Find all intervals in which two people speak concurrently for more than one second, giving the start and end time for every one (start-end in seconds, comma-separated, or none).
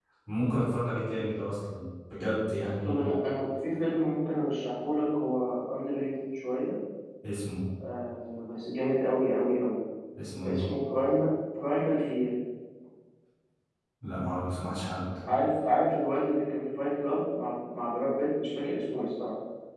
none